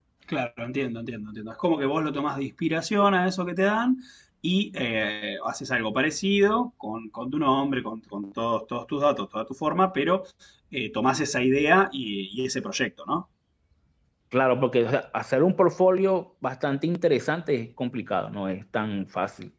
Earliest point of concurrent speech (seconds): none

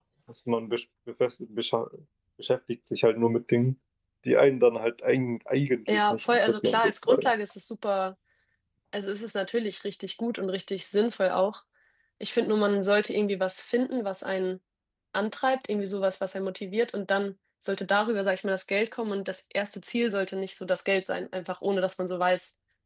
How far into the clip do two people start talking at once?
6 s

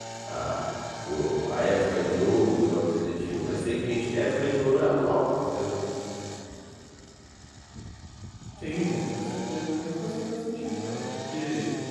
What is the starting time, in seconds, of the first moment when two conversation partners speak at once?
none

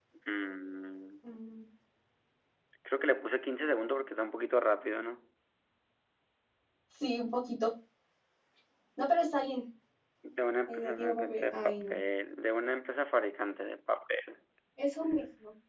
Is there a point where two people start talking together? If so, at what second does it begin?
11 s

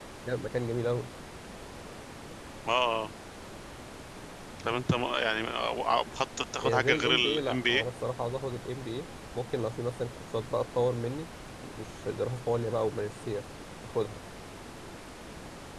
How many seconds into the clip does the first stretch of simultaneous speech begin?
7 s

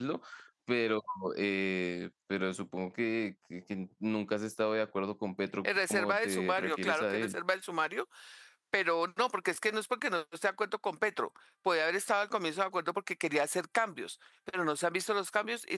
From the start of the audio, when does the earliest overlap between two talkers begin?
6 s

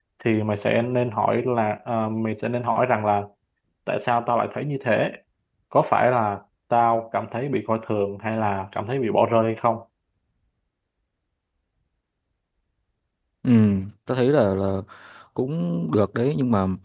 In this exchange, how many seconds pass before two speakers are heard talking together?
none

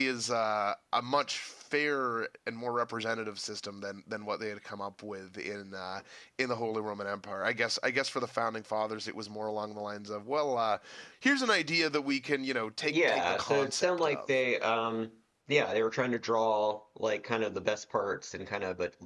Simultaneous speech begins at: 13 s

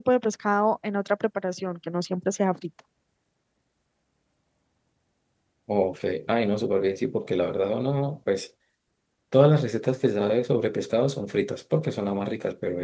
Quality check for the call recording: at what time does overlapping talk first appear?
none

